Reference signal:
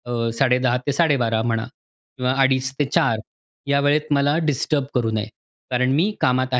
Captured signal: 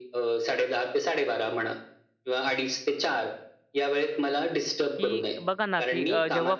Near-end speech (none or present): present